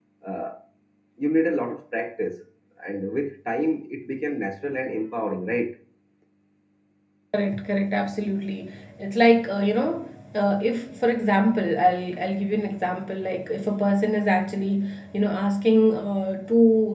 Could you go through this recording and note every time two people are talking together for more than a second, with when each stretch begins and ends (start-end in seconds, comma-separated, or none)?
none